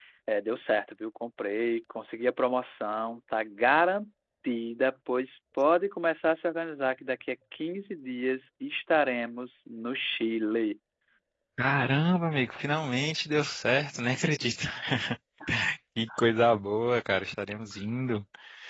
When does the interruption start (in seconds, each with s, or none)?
none